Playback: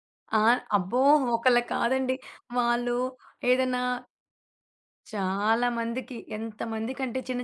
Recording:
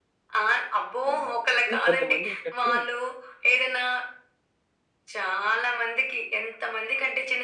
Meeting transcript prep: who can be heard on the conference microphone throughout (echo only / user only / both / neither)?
both